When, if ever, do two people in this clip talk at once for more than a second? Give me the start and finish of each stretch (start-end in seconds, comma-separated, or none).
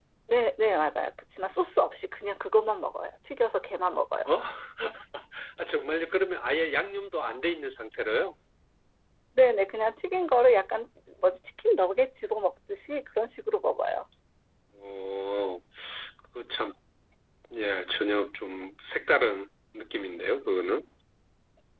none